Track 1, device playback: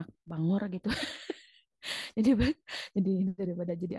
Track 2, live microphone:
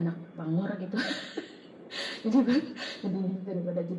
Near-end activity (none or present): none